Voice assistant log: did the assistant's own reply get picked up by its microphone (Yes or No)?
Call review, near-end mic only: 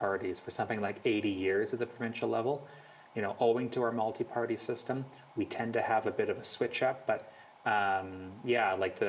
No